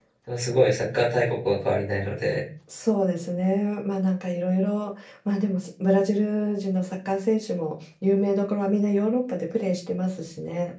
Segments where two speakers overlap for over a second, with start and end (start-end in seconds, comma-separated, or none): none